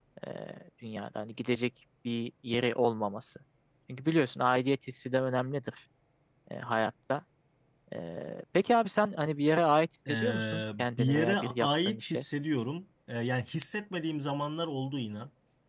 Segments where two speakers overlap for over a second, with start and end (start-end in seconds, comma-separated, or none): 10.1-12.2